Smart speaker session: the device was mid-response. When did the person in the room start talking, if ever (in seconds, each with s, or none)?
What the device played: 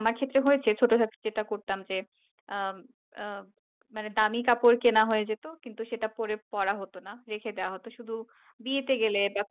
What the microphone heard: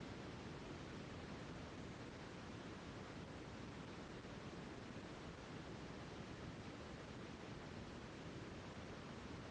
none